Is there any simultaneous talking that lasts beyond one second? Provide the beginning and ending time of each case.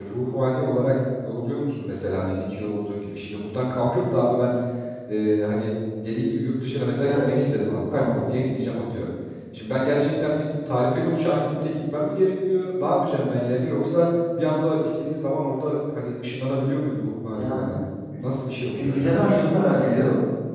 none

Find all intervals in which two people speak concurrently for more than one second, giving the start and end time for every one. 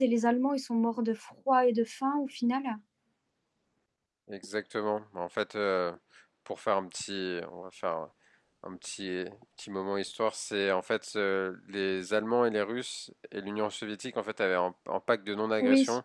none

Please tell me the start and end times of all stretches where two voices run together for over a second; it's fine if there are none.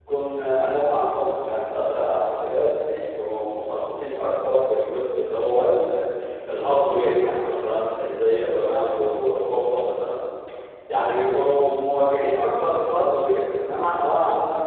none

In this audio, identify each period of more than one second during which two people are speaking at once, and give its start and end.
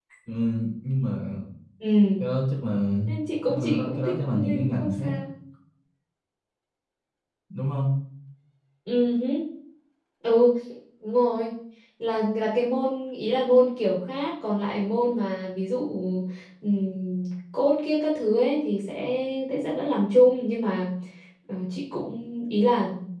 3.5-5.1

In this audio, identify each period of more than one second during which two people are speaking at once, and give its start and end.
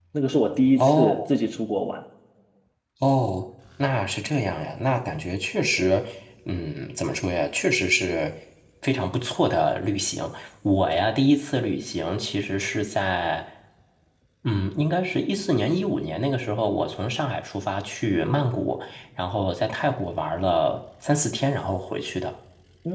none

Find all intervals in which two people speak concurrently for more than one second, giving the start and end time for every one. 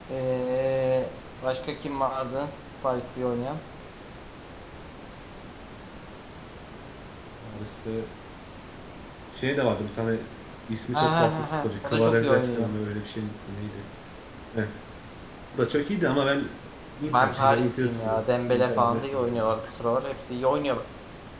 11.0-12.7, 17.0-19.5

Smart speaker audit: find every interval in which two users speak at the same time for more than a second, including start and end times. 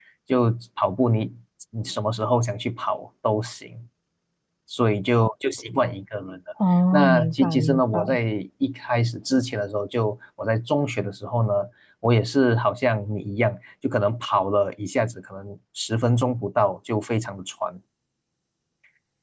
6.9-8.2

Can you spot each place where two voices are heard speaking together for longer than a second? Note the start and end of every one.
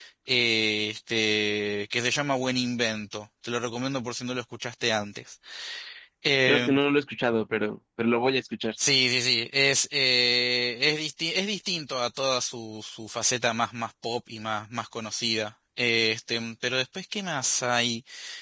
none

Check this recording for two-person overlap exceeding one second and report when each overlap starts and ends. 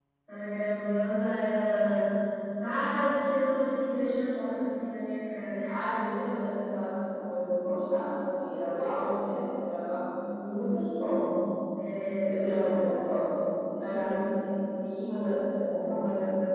none

